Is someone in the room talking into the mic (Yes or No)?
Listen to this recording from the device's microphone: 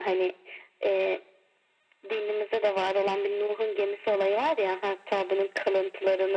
No